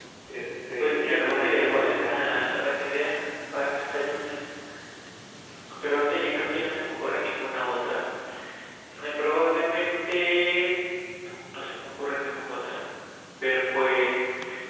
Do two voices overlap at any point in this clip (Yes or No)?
Yes